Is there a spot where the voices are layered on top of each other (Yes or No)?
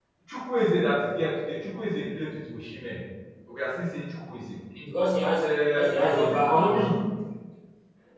Yes